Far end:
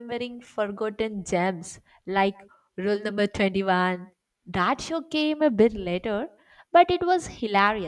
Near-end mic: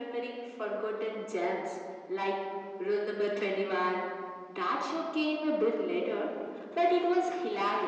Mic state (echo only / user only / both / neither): echo only